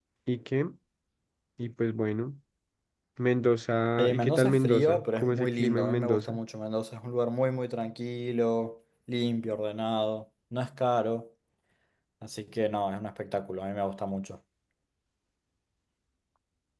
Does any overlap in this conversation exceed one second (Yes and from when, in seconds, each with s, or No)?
Yes, from 4.0 s